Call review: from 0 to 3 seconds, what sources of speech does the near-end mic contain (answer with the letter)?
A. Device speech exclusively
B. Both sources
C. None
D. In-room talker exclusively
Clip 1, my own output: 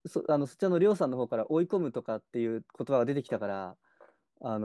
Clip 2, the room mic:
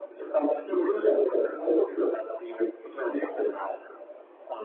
A